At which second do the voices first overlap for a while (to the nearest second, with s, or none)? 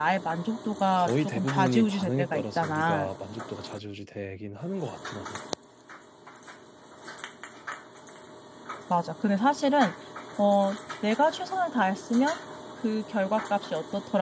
1 s